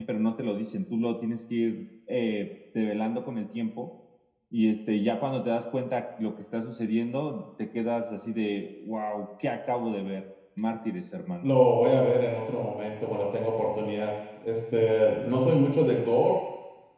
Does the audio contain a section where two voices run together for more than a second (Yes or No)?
No